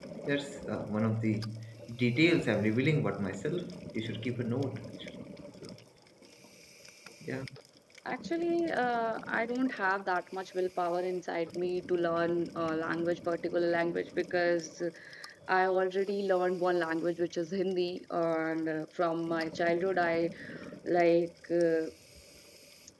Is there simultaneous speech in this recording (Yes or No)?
No